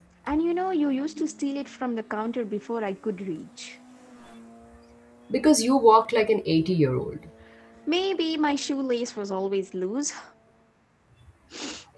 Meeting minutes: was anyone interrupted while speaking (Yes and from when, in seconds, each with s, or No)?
No